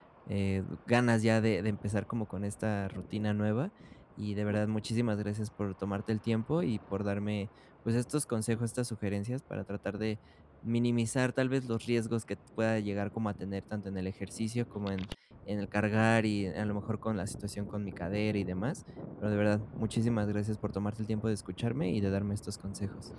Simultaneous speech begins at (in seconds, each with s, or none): none